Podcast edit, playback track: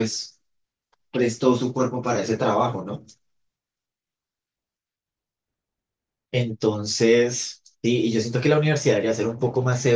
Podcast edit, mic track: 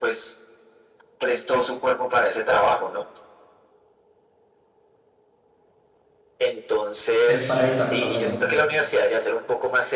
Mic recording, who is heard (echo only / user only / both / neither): both